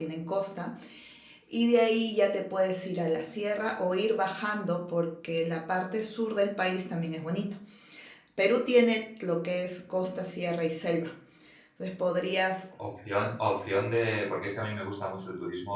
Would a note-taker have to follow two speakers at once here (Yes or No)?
No